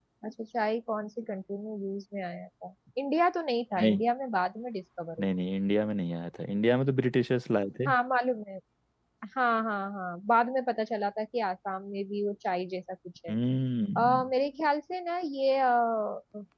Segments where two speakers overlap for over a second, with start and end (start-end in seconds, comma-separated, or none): none